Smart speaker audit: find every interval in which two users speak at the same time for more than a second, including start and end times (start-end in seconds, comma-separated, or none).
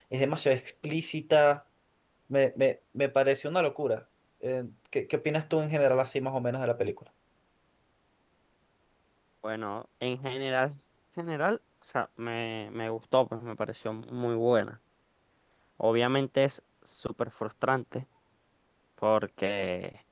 none